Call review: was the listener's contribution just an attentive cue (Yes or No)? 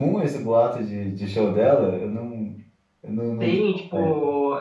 No